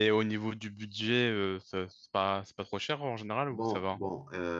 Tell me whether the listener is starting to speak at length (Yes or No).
Yes